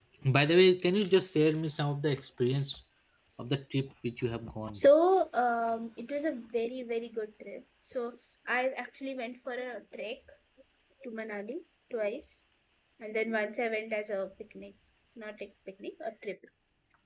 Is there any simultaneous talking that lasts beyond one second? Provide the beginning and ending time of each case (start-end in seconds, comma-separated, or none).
none